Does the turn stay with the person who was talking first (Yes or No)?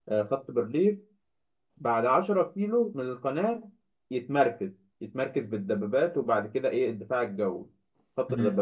Yes